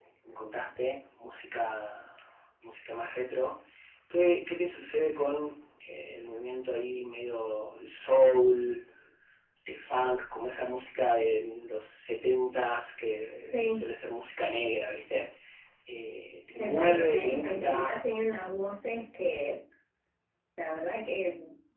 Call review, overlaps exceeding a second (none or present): present